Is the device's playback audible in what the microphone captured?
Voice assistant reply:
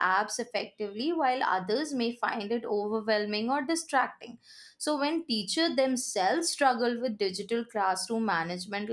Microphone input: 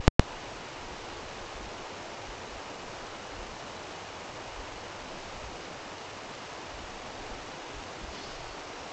No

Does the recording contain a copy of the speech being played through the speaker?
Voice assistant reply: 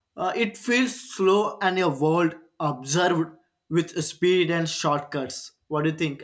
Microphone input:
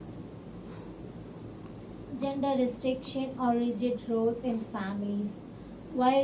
No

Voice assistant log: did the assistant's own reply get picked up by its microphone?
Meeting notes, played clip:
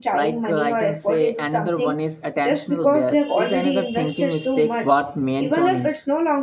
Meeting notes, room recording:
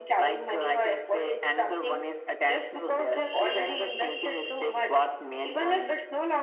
Yes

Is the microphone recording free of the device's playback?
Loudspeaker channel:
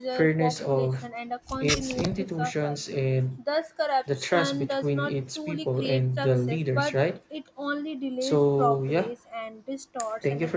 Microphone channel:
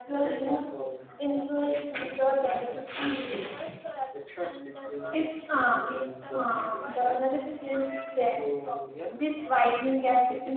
No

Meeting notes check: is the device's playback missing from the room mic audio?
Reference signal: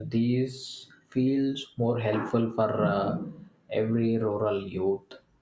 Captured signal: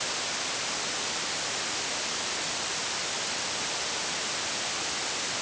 Yes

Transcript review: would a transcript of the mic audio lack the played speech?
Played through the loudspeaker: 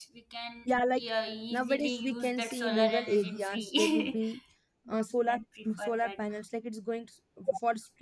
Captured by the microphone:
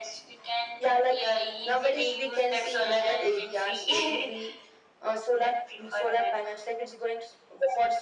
No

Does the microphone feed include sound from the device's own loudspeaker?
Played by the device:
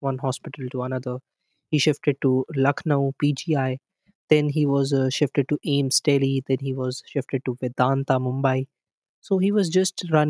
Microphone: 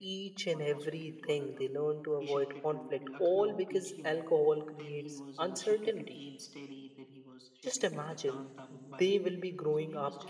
Yes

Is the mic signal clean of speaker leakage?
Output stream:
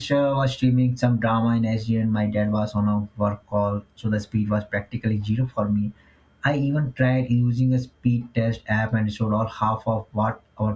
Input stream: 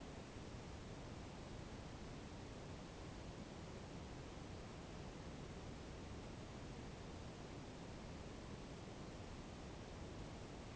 Yes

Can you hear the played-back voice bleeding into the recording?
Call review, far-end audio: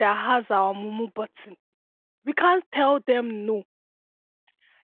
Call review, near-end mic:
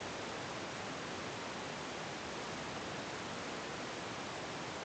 No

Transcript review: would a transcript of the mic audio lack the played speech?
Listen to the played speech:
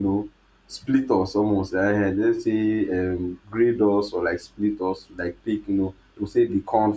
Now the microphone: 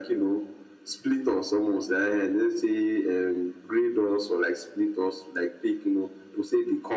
No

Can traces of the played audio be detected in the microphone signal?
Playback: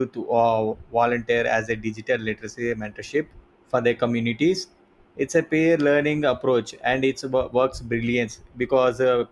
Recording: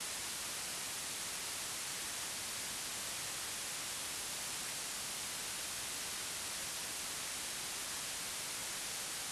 No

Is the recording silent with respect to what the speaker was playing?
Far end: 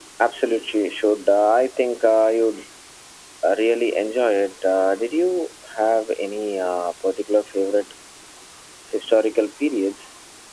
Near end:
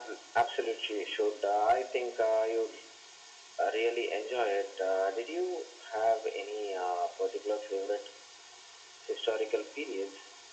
No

